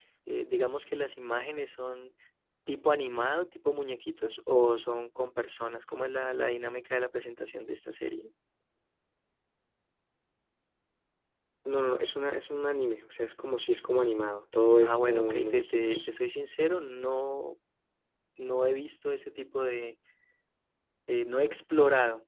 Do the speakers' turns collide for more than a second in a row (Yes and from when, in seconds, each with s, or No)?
Yes, from 14.8 s